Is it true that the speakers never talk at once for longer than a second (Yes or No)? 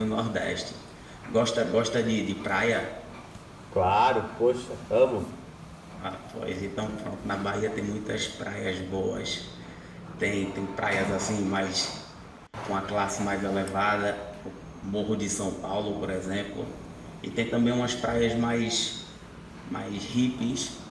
Yes